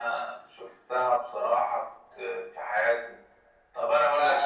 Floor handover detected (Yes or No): Yes